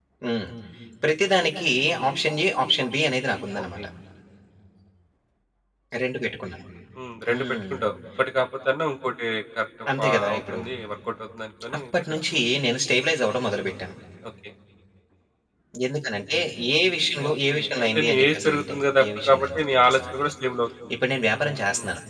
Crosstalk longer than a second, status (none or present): present